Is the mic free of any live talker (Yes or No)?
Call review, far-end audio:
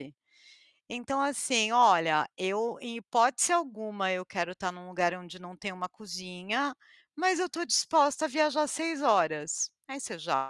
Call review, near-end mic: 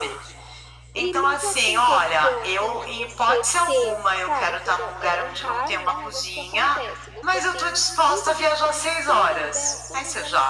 No